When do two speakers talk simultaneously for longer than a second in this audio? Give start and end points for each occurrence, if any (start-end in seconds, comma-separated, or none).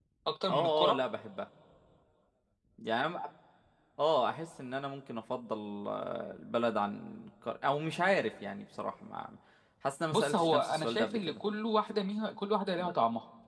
10.1-11.4